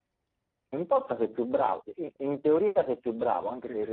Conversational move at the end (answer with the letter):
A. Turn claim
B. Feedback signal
B